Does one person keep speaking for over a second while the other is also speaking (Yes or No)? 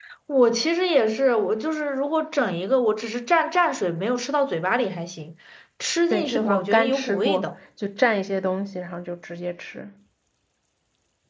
Yes